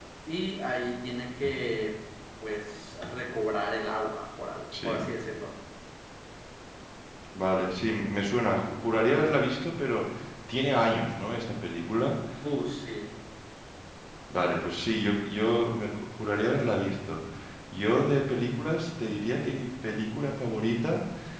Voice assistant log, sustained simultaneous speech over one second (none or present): none